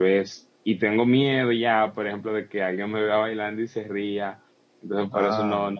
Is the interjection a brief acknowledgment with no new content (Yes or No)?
Yes